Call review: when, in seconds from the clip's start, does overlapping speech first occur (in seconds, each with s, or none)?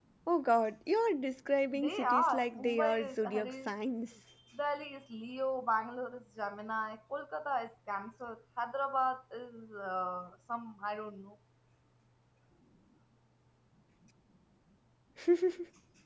1.7 s